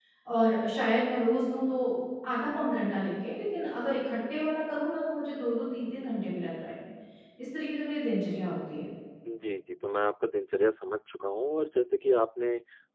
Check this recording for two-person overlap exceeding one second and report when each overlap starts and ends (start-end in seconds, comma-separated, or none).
none